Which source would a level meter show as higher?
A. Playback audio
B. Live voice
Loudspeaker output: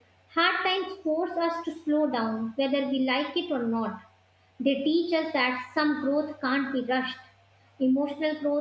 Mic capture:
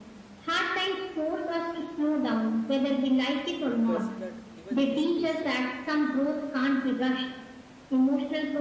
A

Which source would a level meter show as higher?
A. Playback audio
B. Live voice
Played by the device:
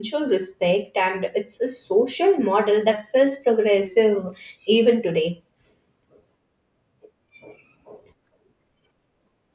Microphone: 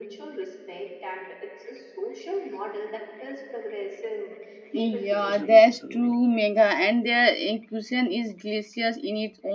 B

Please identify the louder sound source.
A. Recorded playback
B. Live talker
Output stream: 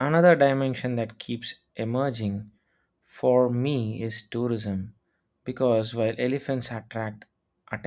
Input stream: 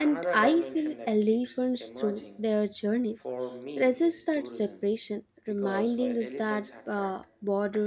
B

